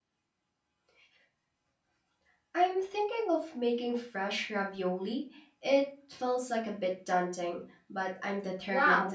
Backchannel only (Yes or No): No